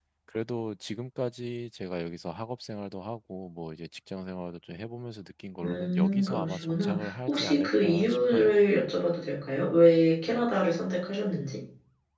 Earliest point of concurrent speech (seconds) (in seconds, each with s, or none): 5.6 s